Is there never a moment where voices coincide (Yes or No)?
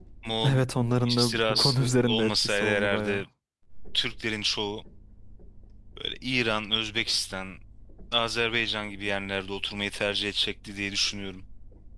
No